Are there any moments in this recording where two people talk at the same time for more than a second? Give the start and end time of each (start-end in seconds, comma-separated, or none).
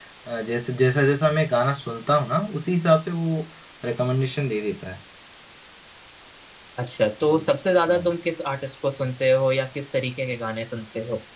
none